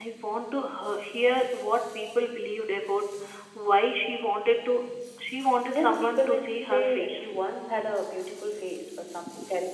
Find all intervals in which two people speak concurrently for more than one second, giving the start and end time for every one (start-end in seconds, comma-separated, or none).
5.7-7.3